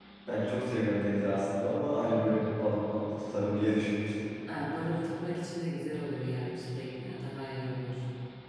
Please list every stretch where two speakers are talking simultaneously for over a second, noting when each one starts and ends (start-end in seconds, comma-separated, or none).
none